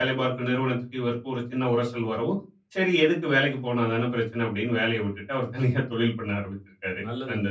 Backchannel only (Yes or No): No